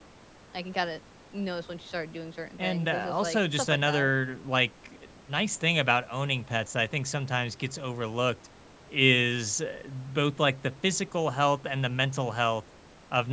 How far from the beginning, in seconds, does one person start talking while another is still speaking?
2.6 s

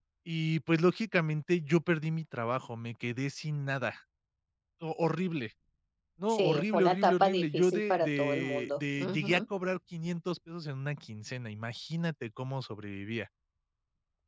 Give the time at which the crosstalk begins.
6.3 s

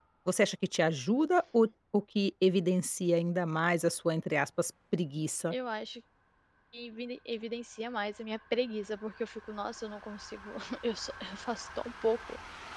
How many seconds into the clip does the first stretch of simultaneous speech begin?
none

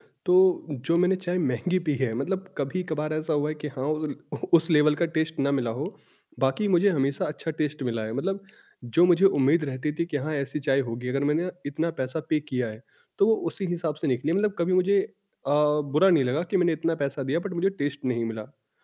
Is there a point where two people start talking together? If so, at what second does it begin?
none

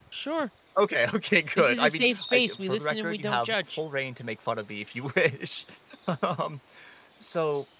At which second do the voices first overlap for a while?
1.6 s

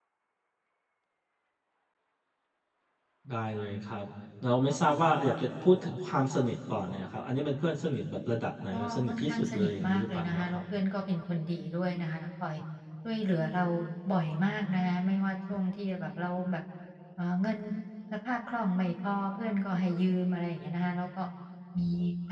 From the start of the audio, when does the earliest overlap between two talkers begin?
8.7 s

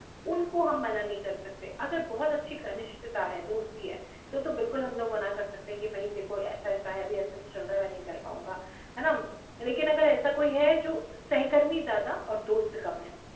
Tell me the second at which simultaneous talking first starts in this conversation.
none

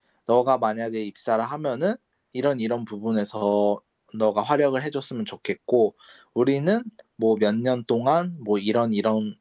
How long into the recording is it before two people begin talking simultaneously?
none

